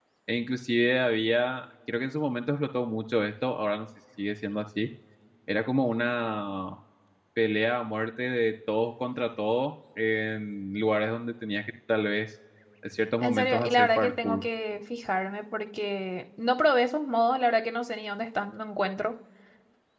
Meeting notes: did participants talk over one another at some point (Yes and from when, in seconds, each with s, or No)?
Yes, from 13.2 s